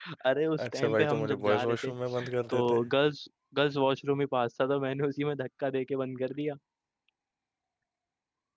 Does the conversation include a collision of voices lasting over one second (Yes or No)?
Yes